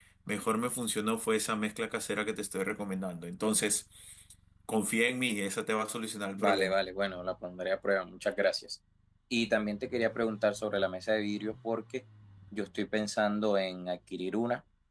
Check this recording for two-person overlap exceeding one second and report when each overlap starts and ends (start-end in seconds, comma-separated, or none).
none